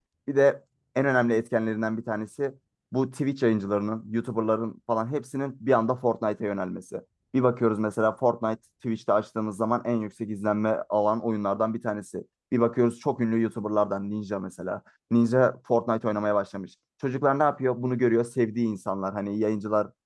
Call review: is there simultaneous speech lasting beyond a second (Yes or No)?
No